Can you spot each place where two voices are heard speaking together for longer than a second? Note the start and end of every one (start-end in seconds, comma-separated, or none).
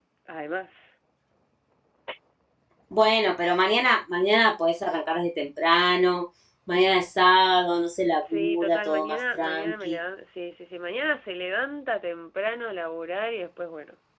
8.3-10.0